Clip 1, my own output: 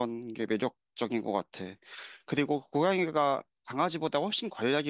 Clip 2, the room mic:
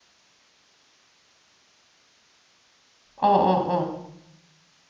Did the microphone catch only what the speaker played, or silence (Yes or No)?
No